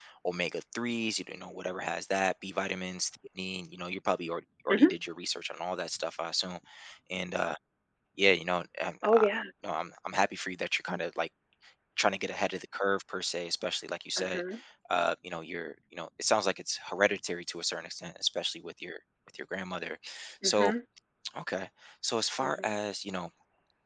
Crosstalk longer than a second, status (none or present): none